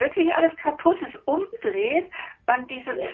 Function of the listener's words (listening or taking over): listening